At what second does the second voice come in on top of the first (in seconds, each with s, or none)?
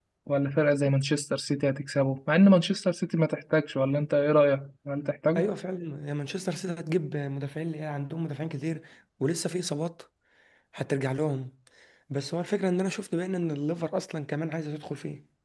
none